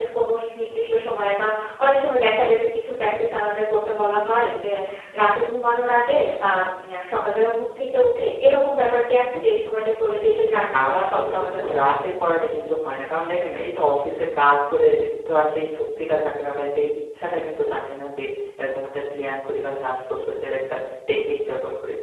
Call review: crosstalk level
present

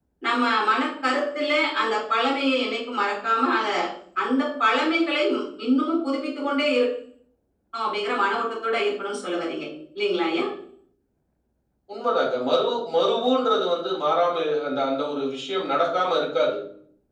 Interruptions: none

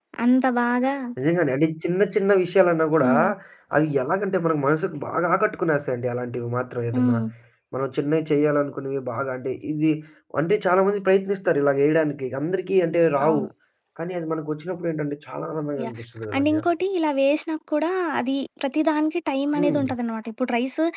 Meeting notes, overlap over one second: none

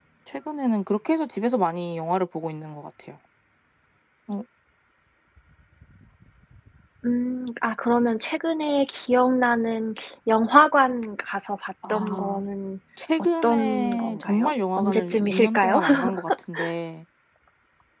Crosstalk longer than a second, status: present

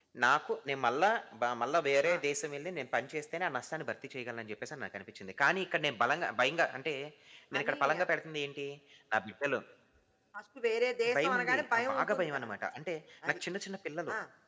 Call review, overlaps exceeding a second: present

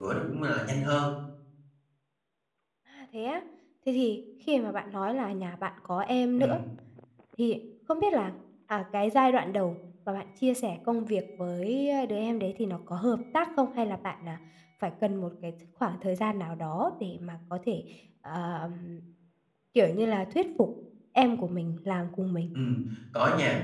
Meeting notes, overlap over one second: none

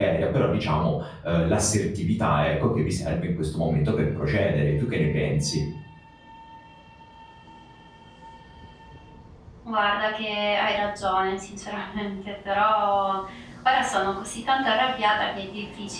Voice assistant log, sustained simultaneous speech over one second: none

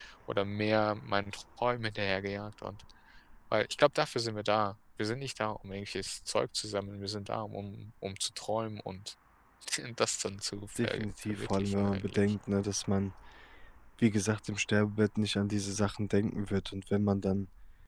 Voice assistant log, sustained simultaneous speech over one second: present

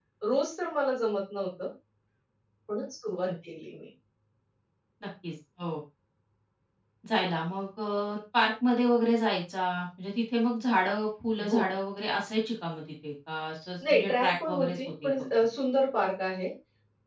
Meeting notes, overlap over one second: present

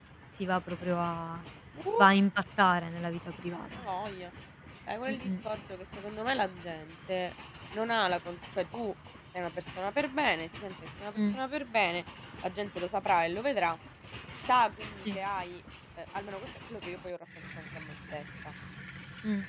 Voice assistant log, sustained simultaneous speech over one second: none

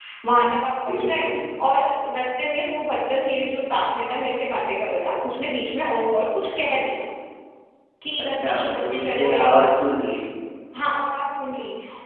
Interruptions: present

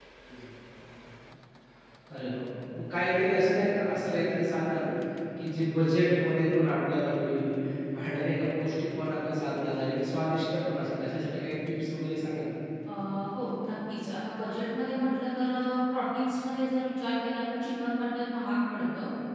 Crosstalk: none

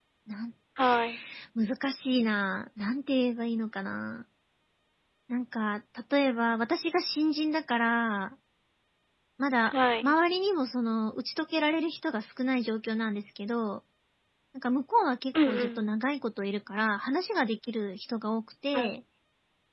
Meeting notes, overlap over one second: none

